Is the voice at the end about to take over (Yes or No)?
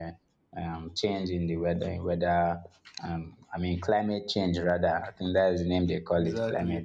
Yes